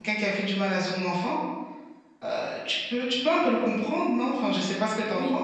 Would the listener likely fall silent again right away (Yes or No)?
No